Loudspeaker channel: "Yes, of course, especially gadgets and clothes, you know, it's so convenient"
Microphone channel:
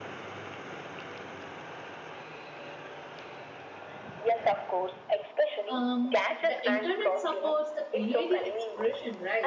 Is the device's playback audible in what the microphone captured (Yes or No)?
Yes